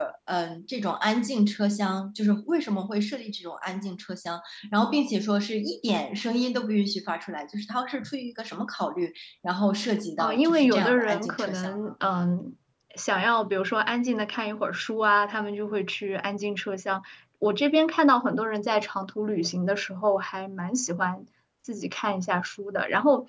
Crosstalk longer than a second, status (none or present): present